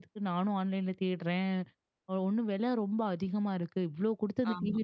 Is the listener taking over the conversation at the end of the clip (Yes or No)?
No